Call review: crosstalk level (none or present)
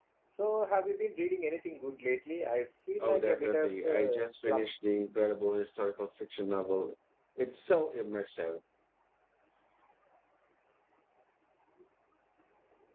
present